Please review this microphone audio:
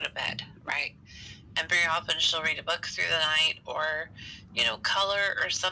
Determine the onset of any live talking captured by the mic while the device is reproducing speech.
none

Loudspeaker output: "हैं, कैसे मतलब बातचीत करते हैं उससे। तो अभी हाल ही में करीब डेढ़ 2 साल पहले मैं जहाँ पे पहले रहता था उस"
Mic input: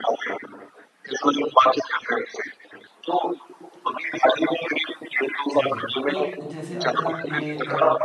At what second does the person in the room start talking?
5.5 s

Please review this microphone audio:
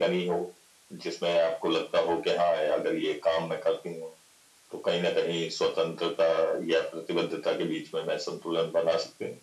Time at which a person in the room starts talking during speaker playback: none

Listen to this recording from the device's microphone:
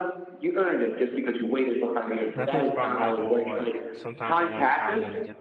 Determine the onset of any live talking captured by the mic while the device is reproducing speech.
2.3 s

